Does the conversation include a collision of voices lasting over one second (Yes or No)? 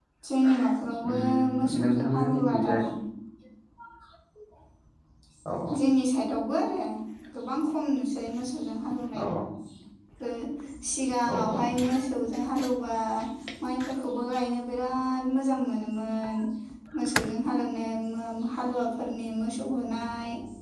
Yes